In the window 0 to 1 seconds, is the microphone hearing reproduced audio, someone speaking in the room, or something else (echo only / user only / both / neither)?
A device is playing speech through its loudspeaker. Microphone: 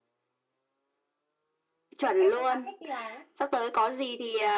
neither